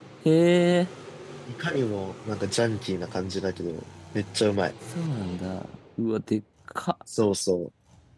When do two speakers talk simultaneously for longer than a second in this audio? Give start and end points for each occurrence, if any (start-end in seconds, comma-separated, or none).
none